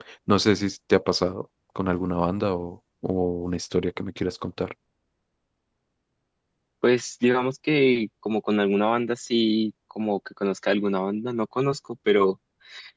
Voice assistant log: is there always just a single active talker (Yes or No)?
Yes